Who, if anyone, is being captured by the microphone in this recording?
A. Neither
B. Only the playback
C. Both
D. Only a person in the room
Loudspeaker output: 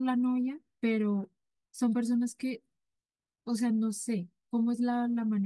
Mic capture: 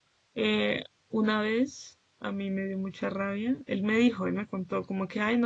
D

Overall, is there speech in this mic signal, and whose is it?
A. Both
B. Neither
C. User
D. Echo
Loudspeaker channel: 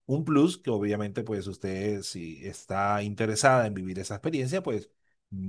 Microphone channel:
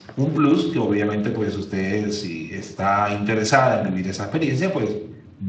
D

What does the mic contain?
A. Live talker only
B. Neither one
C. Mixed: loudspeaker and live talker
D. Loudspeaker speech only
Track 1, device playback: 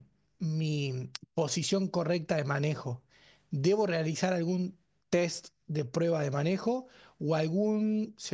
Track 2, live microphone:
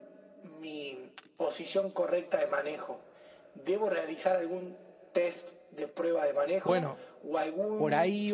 C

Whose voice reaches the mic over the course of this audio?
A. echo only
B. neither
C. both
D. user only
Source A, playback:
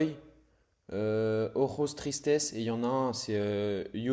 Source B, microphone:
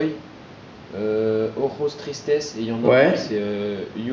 C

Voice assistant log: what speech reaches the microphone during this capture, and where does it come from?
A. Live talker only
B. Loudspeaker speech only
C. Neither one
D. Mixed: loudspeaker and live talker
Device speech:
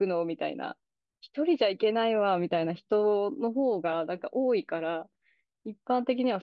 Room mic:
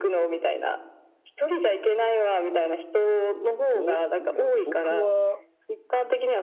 D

